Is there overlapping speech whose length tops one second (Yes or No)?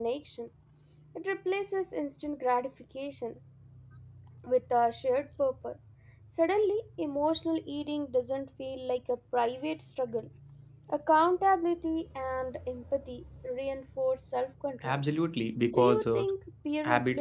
No